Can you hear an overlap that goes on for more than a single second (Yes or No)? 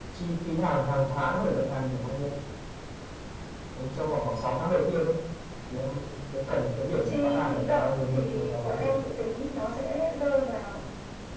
Yes